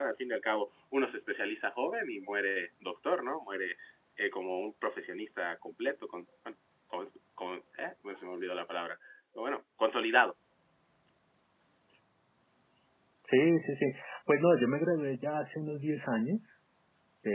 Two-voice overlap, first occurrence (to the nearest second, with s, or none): none